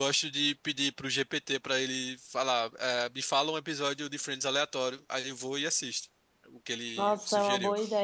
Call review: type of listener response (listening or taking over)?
taking over